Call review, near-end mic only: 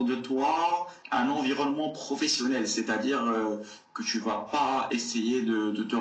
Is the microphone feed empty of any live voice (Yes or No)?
Yes